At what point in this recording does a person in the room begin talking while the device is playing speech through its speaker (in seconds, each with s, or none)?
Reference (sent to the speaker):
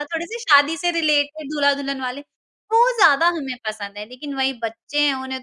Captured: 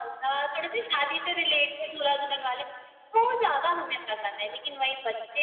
none